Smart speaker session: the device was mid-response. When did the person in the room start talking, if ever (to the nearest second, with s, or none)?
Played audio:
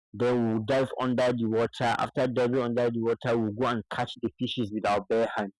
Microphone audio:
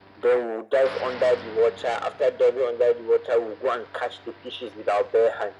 none